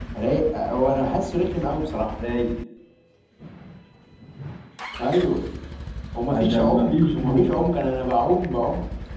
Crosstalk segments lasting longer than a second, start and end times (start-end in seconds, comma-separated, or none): 6.3-7.6